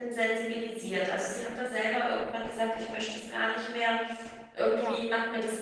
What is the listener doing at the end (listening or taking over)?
listening